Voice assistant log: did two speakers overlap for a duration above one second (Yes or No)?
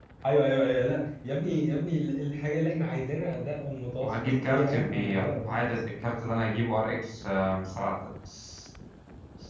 Yes